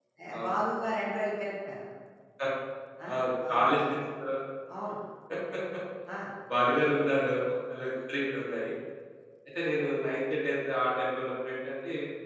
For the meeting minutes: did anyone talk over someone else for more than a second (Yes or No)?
No